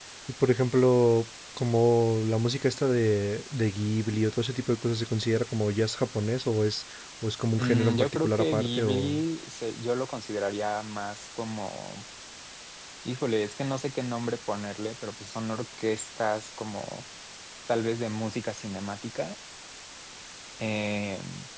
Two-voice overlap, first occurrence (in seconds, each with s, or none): 7.6 s